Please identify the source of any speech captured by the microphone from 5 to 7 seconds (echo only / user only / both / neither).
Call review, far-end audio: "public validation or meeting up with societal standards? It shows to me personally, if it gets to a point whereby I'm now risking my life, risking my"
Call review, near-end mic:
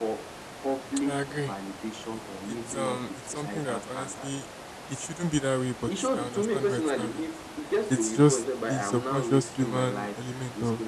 both